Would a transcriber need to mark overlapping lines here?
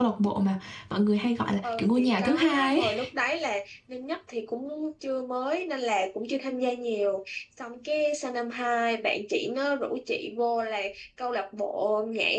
Yes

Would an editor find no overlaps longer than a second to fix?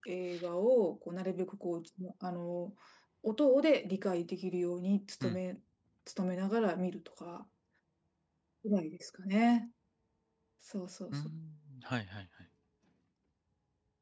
Yes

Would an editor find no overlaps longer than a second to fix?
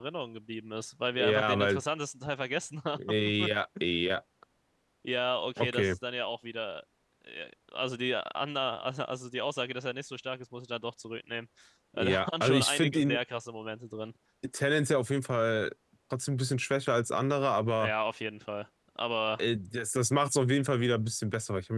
No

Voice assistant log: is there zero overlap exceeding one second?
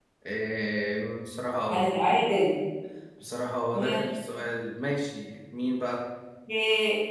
Yes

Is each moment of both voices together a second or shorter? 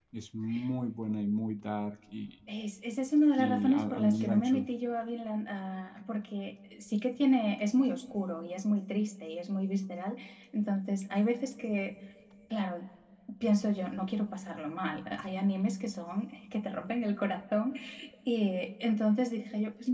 No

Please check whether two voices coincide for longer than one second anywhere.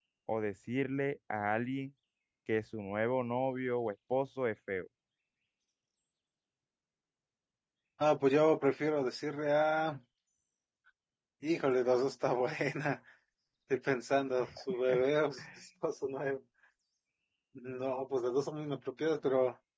No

